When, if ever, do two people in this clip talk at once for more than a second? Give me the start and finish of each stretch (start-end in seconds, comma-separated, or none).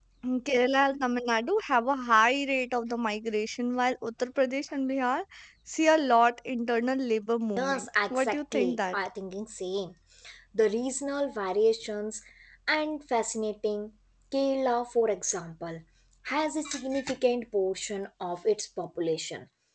7.6-9.0